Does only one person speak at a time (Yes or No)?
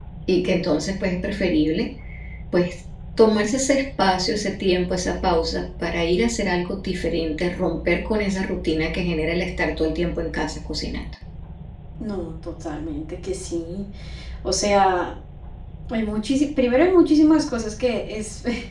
Yes